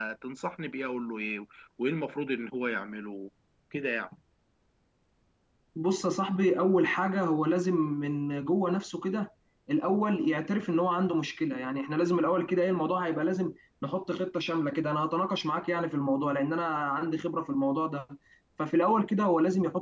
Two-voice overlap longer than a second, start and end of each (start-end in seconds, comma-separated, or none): none